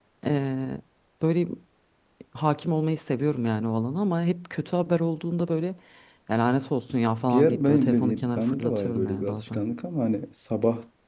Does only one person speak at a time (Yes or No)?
No